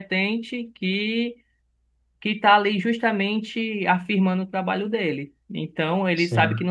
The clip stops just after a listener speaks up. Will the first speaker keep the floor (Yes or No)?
Yes